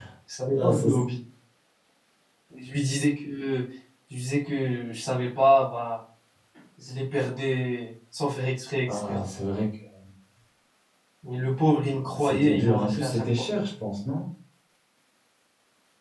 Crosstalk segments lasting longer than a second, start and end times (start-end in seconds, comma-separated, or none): 12.1-13.5